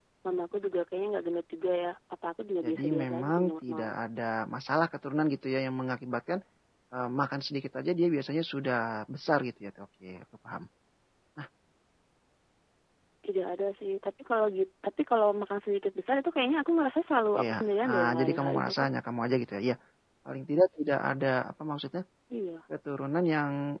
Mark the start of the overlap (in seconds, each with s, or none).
2.6 s